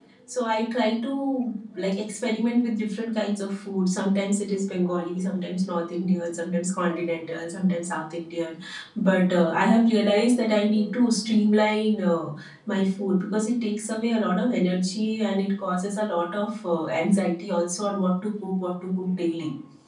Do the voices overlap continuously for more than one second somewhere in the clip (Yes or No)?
No